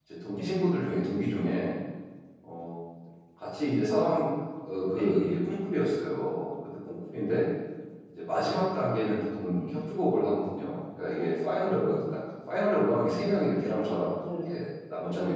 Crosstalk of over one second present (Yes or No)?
No